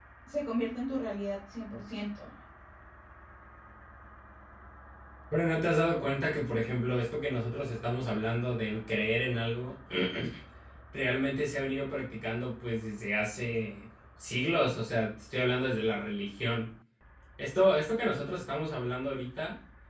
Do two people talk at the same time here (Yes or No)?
No